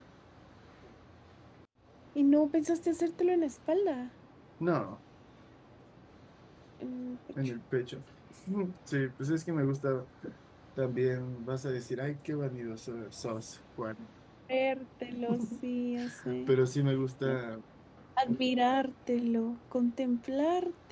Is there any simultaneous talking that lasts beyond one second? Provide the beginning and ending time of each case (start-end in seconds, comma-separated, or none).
none